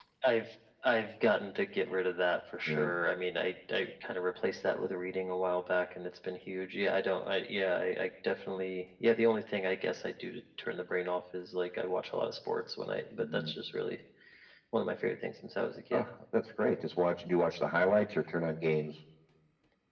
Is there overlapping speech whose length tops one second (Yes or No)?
No